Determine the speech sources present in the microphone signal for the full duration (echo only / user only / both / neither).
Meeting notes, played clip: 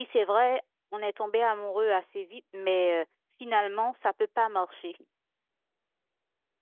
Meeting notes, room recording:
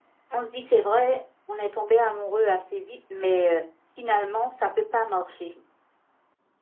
echo only